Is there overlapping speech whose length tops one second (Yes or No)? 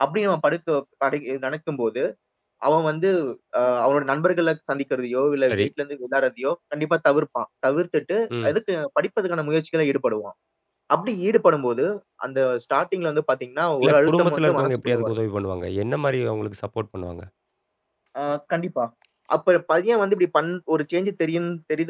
Yes